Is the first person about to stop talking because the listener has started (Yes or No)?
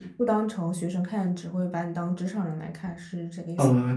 Yes